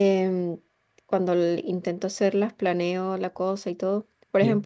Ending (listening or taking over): listening